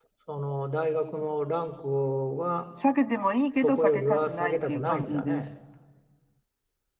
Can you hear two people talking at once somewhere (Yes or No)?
Yes